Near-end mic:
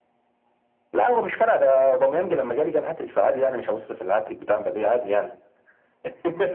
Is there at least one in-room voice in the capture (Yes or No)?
No